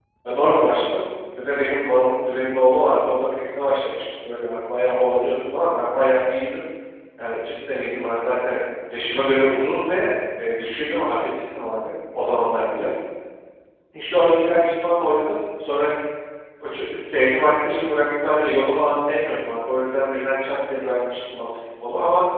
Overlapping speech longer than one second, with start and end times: none

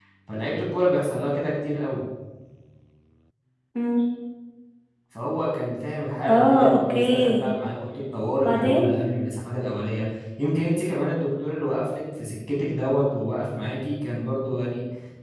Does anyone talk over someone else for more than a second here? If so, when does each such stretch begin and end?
6.3-7.5

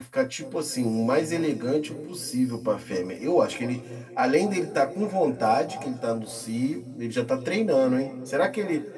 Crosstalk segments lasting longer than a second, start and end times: none

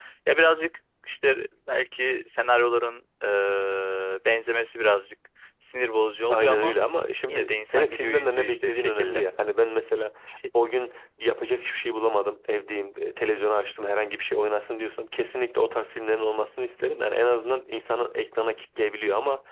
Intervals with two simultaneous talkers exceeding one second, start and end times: 7.3-9.2

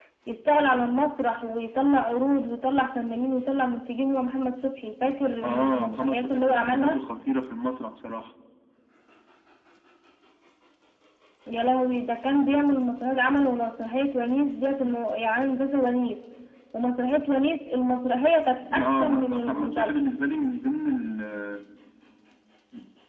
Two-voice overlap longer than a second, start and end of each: 5.4-7.0, 18.8-20.1

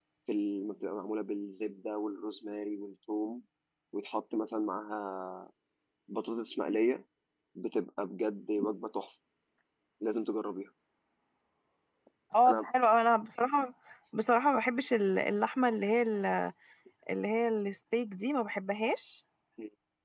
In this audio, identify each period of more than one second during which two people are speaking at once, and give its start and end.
none

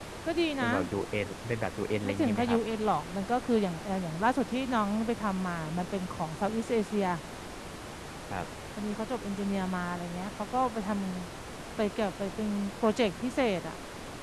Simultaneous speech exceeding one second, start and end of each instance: none

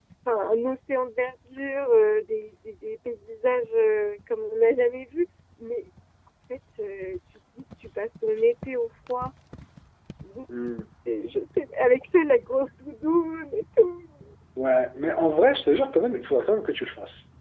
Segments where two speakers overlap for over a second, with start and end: none

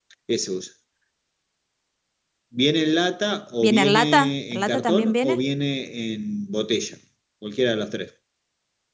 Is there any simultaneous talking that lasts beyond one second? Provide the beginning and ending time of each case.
3.6-5.4

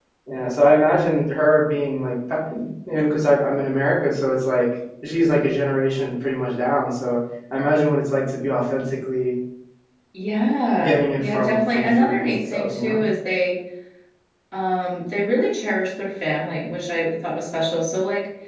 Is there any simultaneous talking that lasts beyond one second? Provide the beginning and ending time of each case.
10.8-13.0

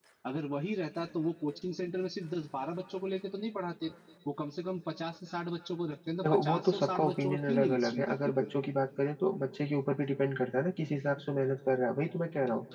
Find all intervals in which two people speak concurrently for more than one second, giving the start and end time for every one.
6.2-8.3

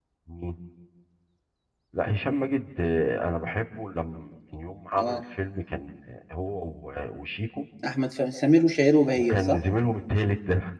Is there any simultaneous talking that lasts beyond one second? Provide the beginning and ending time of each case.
none

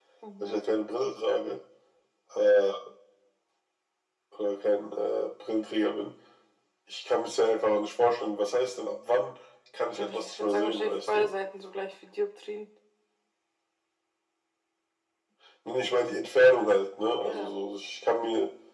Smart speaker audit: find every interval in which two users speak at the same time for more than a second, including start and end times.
9.9-11.3

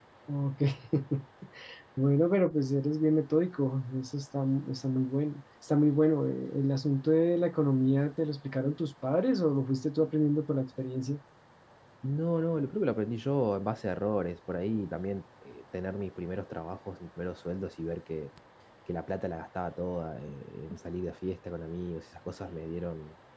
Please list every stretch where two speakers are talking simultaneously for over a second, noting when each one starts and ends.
none

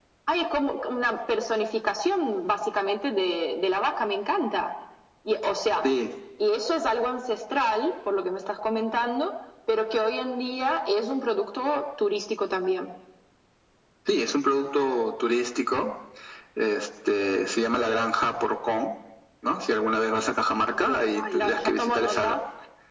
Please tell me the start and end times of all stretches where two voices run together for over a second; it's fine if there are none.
20.8-22.4

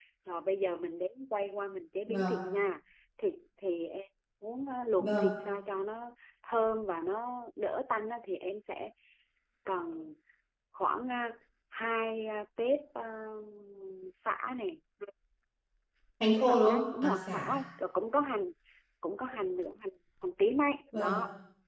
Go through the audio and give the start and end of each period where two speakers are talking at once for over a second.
16.4-17.6

